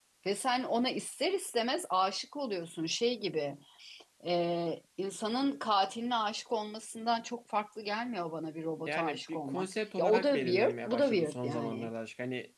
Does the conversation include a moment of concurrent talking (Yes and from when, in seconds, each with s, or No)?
Yes, from 8.9 s